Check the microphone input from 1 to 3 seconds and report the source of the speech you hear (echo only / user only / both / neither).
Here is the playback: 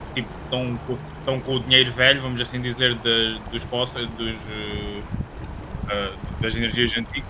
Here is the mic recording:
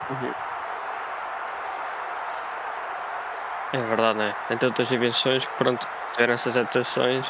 neither